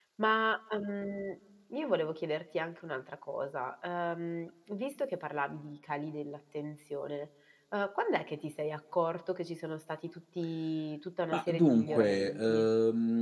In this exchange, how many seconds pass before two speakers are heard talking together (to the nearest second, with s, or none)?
11 s